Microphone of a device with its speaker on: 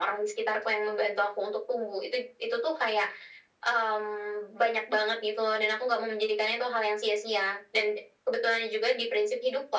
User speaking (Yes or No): No